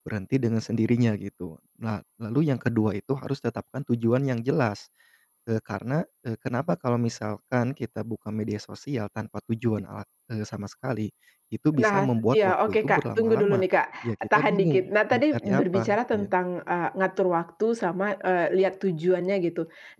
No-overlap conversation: No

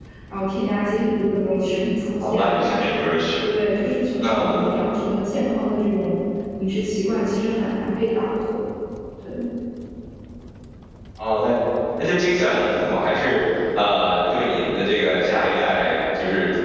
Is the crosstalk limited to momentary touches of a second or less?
Yes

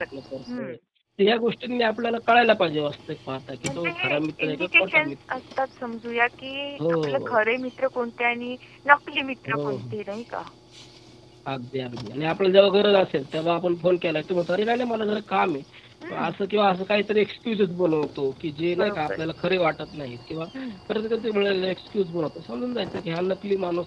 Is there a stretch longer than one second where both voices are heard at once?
Yes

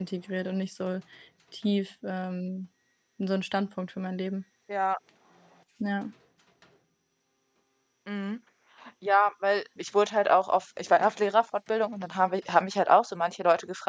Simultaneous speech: No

